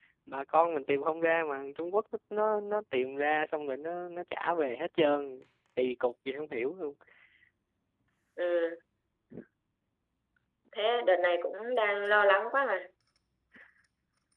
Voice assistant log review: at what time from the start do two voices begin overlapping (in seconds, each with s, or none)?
none